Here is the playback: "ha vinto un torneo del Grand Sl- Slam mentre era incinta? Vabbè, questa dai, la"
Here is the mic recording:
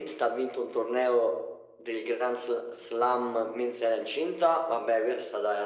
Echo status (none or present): present